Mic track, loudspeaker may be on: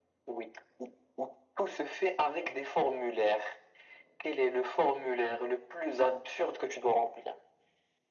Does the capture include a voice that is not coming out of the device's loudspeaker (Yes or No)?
No